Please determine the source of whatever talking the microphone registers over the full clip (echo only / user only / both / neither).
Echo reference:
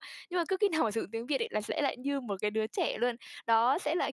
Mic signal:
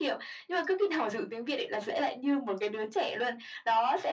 echo only